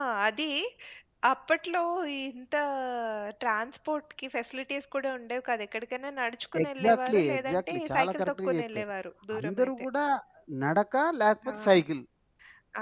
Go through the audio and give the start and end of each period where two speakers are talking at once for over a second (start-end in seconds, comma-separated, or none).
6.6-8.8